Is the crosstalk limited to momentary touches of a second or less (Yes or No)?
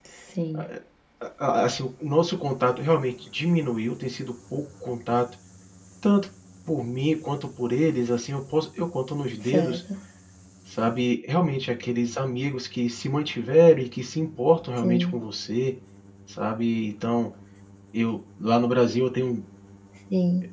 Yes